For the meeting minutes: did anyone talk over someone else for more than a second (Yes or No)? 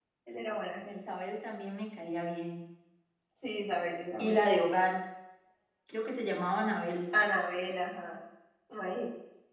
No